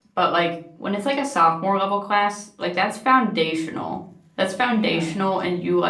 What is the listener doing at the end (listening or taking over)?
listening